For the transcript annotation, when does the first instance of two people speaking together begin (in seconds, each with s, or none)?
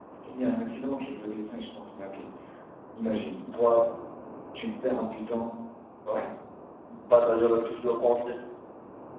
none